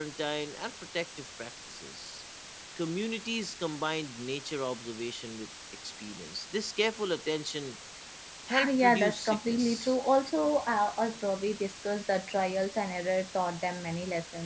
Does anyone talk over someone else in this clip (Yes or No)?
Yes